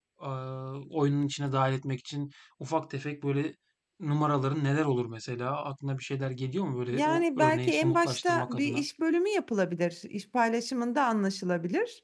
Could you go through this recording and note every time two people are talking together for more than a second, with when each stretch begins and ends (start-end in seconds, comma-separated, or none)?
6.9-8.8